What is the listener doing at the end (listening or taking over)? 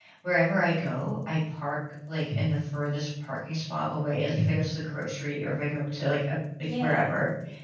listening